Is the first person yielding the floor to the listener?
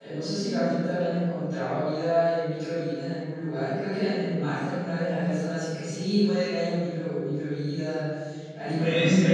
No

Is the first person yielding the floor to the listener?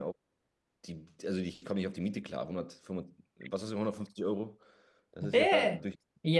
Yes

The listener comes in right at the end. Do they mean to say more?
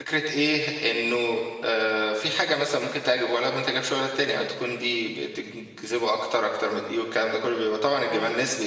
No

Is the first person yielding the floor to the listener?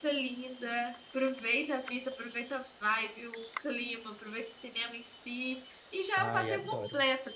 No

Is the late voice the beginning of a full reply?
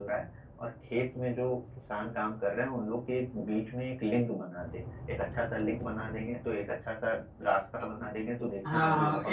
Yes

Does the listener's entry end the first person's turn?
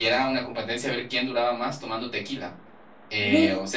No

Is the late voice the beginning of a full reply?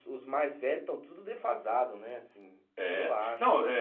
Yes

